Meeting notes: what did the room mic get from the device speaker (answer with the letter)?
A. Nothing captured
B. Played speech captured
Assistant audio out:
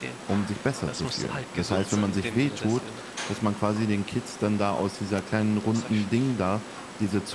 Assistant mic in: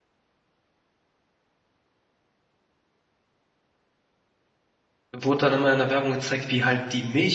A